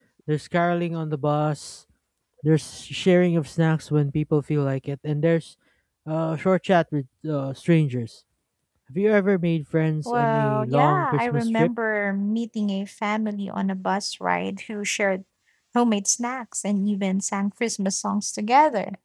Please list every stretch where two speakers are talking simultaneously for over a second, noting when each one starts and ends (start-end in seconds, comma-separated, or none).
10.1-11.7